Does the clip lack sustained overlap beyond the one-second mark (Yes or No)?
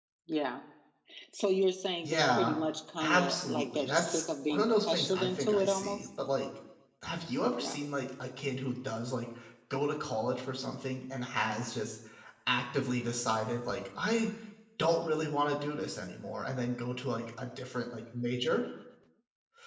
No